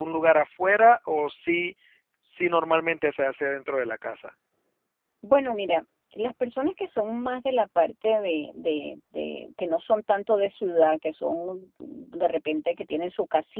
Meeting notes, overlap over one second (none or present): none